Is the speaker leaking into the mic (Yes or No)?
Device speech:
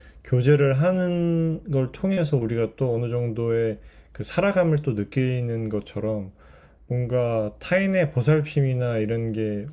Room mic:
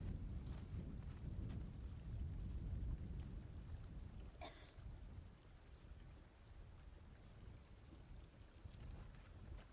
No